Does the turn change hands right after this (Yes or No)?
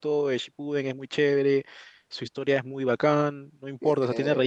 No